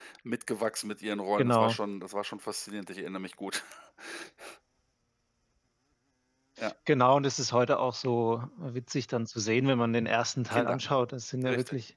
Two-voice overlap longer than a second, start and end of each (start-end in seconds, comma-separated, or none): none